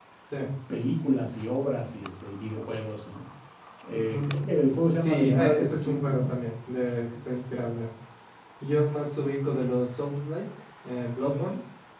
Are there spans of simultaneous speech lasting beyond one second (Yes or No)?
Yes